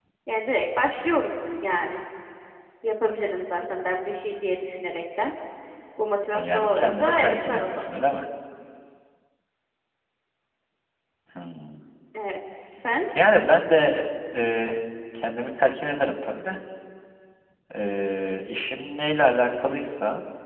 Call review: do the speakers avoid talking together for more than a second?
No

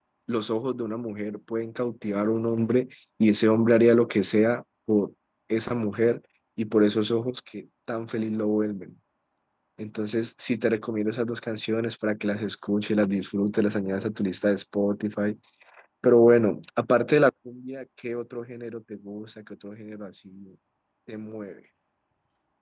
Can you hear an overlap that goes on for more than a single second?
No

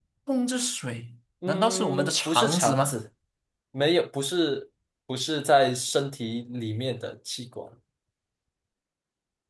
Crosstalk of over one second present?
Yes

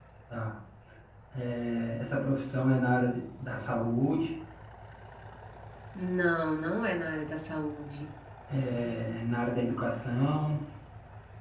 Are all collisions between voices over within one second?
Yes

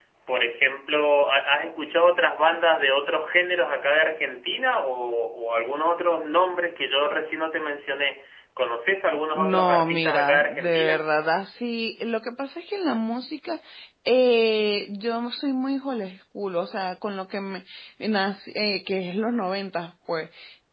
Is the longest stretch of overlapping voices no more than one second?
No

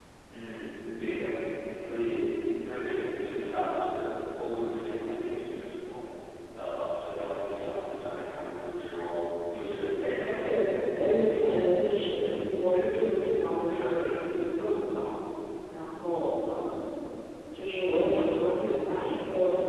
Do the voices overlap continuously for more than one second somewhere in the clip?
Yes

